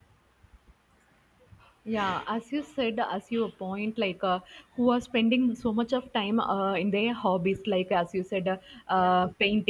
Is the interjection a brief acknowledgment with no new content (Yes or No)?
Yes